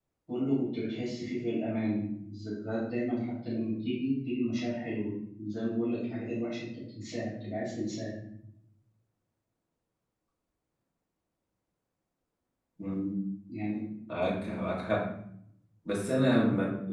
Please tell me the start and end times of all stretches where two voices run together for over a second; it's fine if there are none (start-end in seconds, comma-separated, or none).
none